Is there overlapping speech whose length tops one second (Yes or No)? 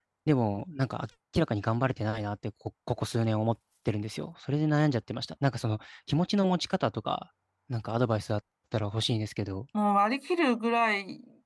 No